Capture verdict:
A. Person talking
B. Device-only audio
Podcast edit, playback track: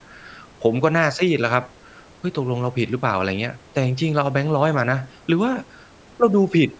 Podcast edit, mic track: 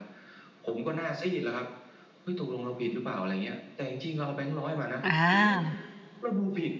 A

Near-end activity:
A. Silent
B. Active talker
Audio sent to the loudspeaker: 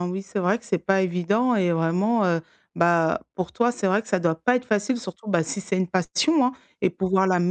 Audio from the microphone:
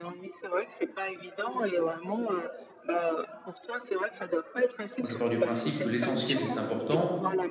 B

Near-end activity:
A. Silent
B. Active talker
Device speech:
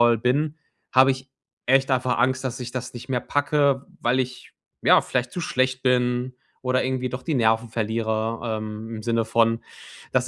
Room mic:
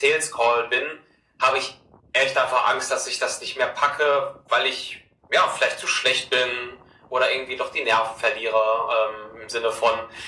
A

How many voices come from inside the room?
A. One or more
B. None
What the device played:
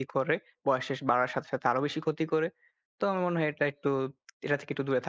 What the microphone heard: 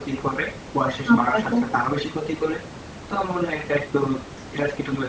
A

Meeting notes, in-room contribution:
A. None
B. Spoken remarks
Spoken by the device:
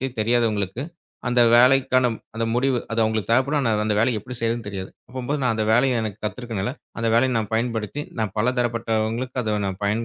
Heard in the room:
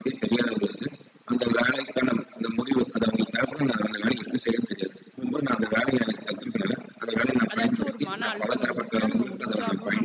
B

